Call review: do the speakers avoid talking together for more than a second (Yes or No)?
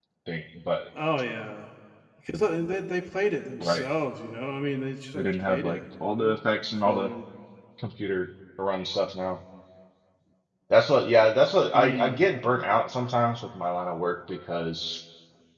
No